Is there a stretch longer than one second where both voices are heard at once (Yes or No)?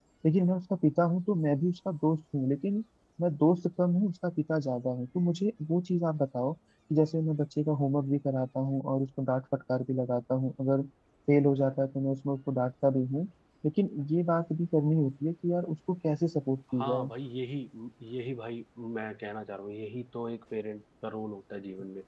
No